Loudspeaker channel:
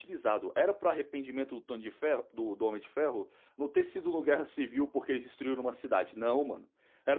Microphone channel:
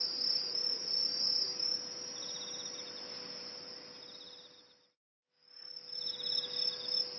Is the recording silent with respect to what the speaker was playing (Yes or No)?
Yes